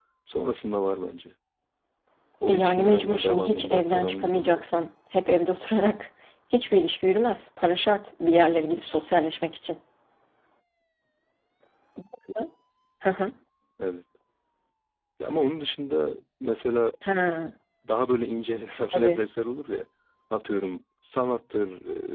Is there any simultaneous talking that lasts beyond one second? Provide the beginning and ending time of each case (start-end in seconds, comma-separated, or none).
2.5-4.6